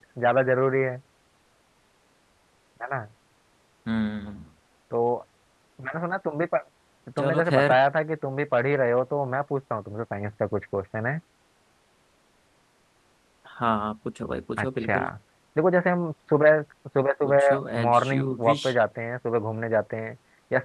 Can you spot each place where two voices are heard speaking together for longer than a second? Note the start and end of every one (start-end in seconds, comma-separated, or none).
17.2-18.6